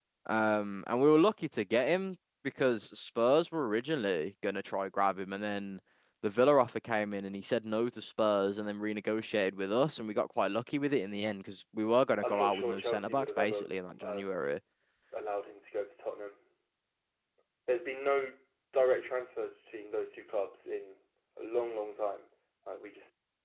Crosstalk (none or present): present